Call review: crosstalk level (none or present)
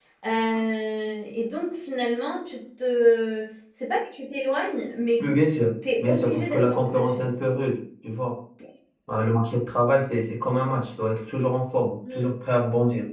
present